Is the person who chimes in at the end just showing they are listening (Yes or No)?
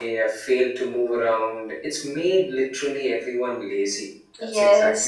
No